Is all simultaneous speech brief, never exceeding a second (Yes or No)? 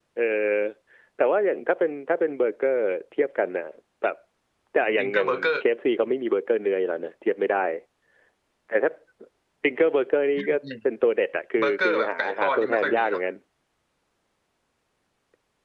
No